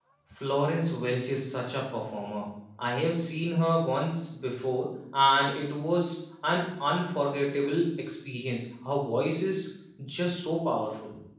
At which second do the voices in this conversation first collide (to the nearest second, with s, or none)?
none